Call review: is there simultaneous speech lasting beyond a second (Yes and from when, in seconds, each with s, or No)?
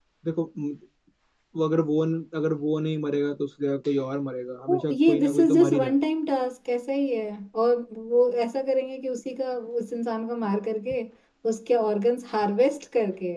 Yes, from 4.7 s